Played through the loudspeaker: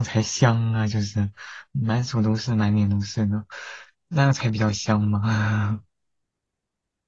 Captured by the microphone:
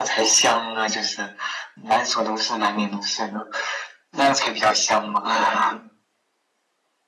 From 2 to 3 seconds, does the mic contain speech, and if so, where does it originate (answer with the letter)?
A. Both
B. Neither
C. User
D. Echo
D